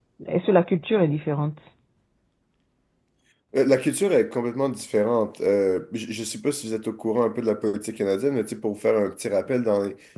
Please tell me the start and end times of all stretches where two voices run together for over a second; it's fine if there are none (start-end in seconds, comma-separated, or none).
none